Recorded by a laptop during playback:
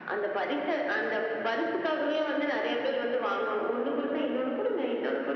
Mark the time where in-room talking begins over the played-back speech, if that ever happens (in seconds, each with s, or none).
none